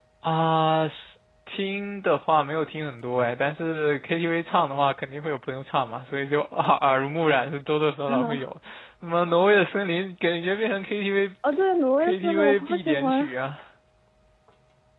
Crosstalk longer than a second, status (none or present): present